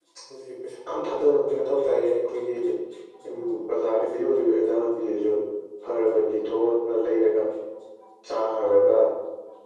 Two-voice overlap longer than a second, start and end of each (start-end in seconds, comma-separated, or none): none